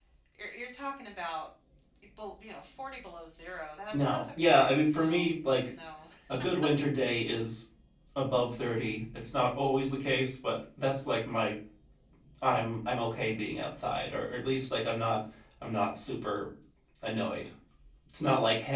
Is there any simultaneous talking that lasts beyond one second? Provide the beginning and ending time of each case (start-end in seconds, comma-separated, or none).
3.9-5.3